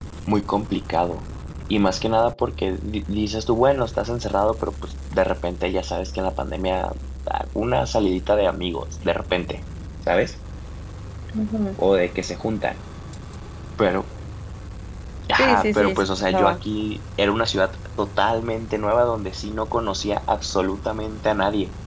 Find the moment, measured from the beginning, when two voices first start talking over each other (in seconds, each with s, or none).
15.4 s